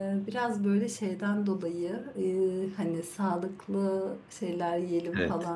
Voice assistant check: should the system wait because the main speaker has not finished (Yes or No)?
Yes